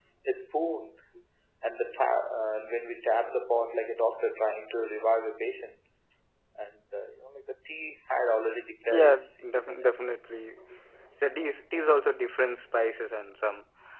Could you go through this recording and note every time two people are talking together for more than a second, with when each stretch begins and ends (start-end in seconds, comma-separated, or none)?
8.9-10.1